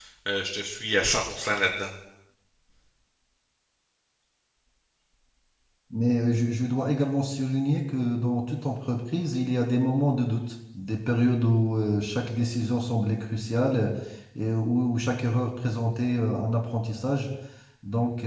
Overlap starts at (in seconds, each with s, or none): none